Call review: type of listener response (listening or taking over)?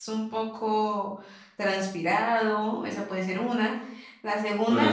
listening